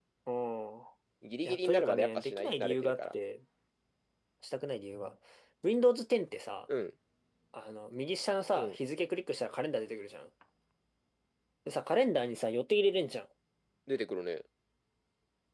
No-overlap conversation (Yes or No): No